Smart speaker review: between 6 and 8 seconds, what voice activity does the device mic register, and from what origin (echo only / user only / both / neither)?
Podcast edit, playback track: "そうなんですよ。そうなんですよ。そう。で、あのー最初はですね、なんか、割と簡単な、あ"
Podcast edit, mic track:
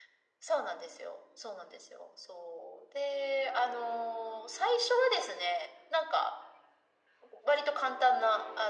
echo only